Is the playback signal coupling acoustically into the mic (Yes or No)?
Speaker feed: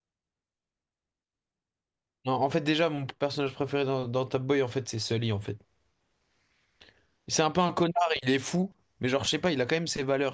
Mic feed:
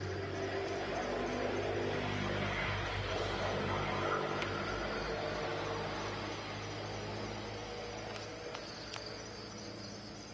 No